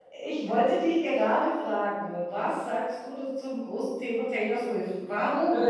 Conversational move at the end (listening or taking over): taking over